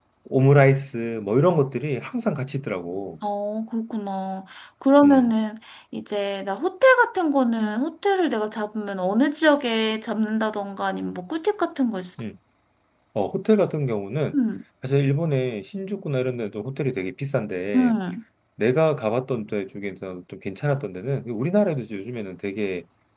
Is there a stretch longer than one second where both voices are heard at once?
No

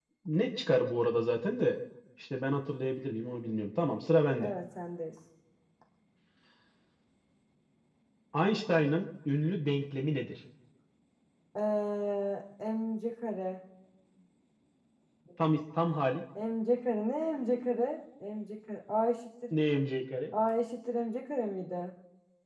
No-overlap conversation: Yes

